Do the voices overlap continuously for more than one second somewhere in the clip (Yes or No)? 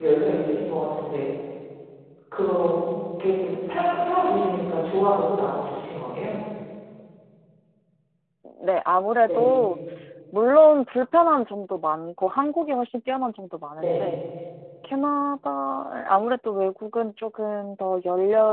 No